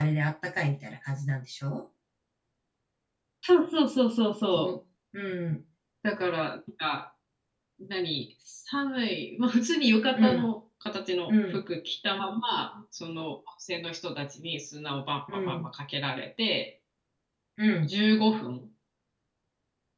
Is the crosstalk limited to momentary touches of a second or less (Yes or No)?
Yes